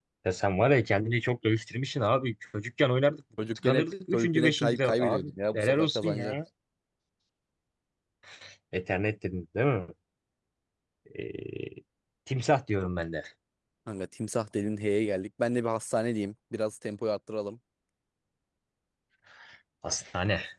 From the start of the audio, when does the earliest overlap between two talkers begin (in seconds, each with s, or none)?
3.4 s